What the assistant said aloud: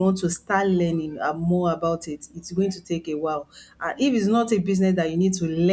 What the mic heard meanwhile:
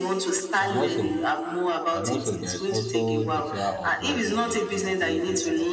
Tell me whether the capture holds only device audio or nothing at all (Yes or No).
No